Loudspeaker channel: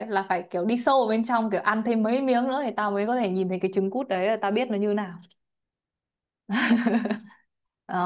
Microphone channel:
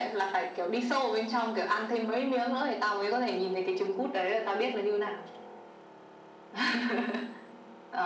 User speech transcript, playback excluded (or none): none